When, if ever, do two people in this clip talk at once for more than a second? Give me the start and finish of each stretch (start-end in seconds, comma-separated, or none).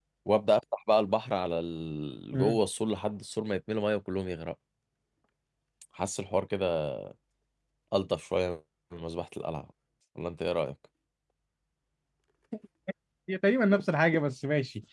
none